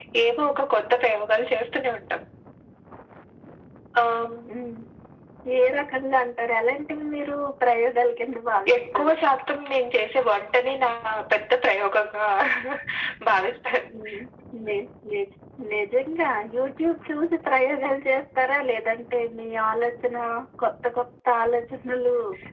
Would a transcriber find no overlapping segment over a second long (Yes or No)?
Yes